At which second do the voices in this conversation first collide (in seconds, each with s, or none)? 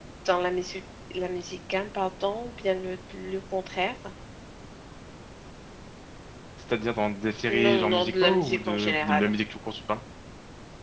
7.5 s